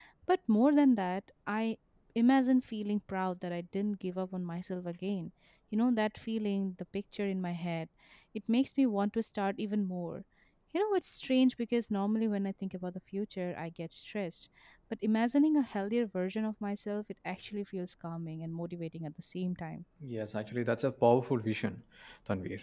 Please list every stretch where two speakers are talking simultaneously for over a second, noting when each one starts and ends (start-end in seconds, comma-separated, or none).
none